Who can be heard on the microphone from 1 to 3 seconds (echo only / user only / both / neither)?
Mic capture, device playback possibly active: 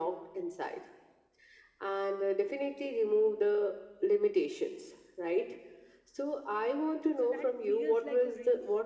echo only